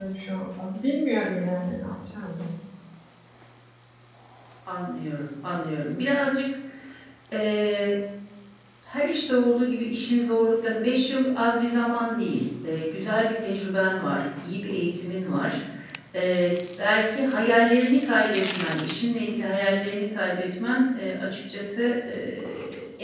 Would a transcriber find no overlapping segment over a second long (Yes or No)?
Yes